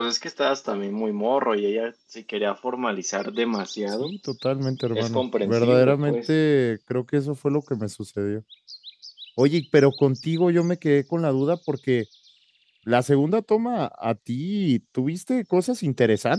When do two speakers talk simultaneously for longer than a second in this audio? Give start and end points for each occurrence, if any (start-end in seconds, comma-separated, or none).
4.9-6.3